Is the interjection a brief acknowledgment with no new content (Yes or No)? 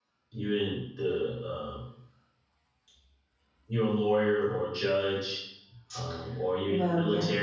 Yes